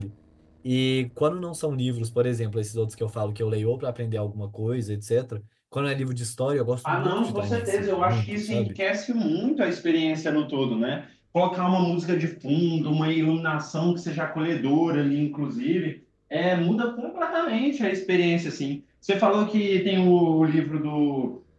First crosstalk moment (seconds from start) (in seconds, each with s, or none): 6.8 s